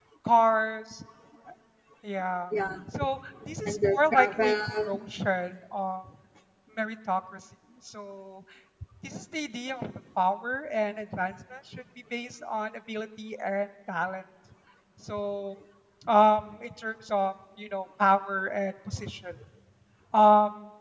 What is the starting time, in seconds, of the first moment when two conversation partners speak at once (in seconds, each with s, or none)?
3.7 s